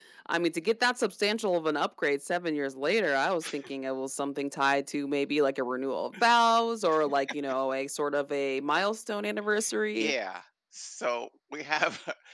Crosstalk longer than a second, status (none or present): none